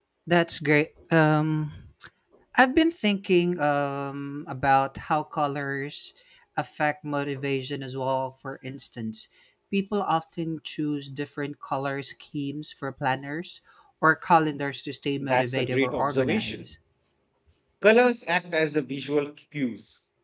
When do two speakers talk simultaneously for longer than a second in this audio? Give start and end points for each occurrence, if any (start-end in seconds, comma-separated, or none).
15.2-16.6